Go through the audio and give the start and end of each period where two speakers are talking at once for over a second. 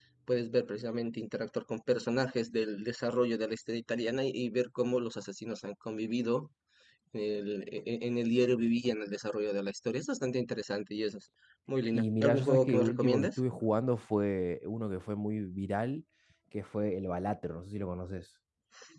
11.9-13.3

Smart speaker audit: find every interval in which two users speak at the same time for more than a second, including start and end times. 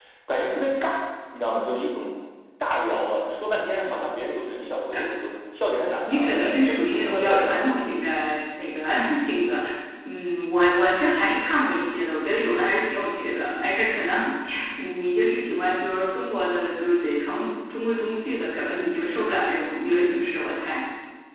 6.1-7.7

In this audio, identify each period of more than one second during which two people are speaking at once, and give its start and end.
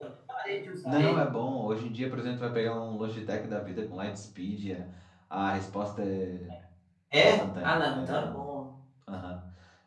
7.2-8.4

